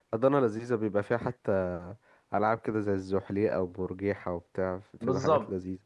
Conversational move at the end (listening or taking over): taking over